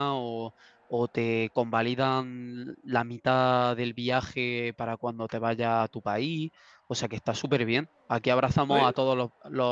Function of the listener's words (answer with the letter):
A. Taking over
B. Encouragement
B